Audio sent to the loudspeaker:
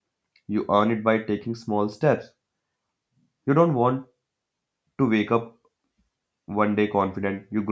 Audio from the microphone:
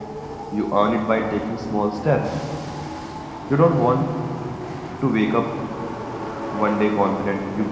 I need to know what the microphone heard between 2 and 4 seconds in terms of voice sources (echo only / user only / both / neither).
echo only